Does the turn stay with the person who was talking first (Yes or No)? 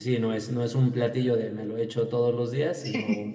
Yes